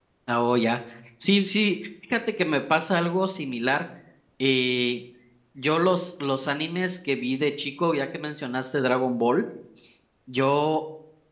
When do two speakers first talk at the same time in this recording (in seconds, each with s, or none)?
none